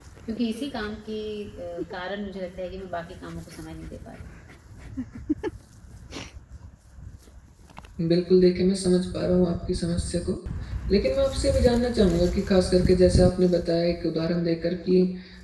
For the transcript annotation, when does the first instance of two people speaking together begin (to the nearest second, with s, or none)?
none